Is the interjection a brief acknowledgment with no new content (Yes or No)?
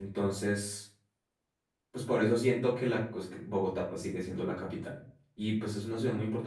Yes